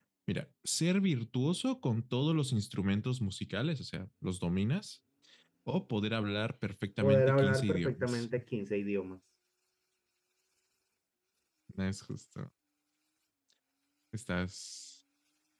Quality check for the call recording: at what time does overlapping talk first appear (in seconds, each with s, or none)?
7.0 s